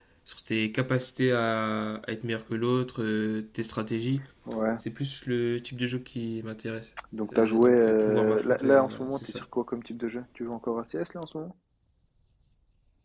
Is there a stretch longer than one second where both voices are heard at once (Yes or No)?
Yes